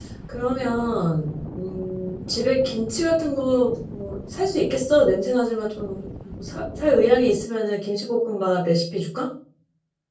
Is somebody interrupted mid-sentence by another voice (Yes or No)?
No